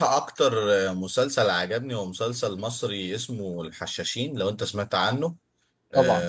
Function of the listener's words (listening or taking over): listening